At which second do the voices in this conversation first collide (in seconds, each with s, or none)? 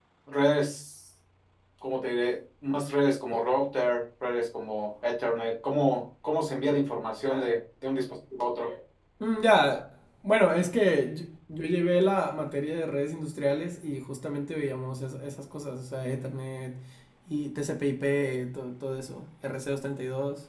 none